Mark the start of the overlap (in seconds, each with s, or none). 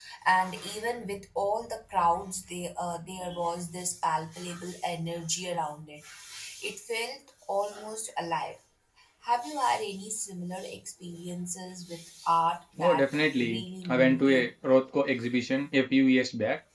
12.8 s